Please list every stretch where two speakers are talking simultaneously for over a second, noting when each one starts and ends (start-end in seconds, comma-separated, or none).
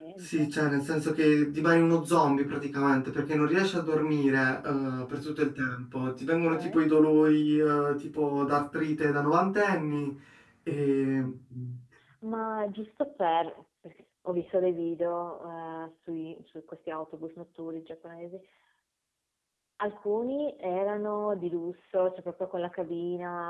none